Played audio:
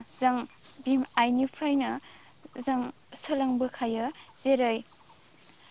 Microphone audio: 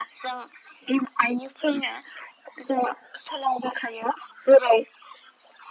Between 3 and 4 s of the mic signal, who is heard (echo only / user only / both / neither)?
echo only